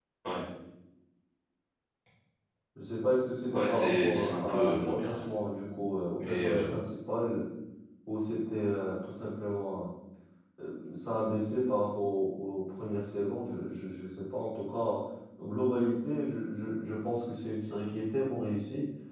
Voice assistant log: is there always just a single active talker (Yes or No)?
No